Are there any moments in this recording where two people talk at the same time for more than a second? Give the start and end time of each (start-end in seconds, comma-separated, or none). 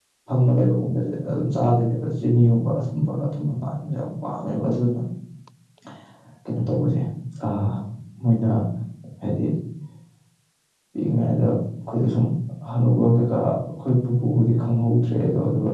none